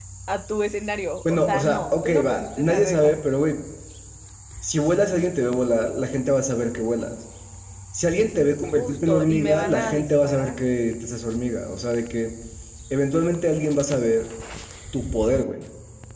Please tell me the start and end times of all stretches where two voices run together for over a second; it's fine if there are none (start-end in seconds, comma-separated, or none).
1.3-3.2, 8.8-10.6